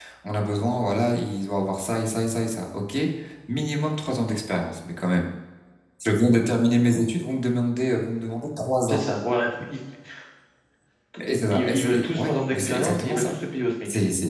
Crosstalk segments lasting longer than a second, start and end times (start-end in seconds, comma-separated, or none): 11.5-13.3